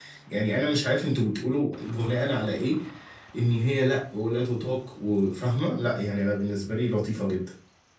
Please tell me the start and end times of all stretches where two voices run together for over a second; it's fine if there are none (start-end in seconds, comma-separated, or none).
none